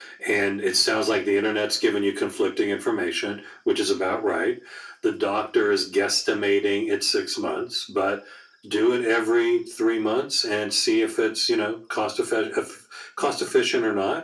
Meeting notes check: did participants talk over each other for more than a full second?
No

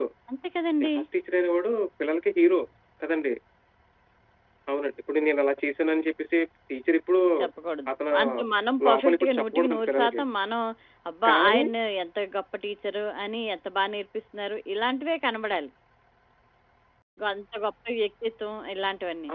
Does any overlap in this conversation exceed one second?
Yes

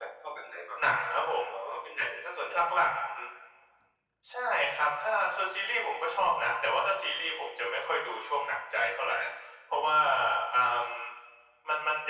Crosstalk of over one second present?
No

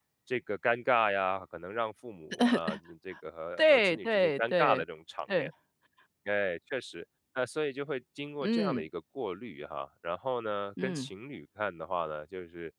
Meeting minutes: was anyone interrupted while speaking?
Yes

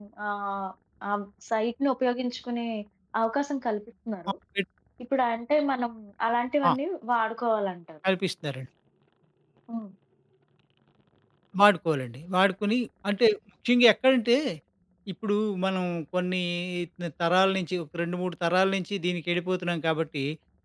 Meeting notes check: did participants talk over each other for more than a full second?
No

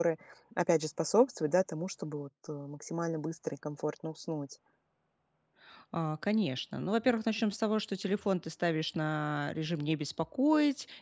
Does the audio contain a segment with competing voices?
No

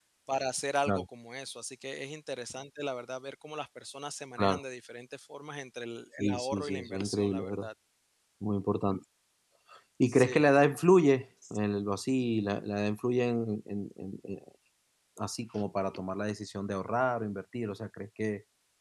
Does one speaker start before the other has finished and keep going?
Yes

